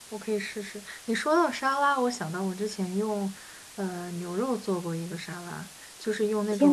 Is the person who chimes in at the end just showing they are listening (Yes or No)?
No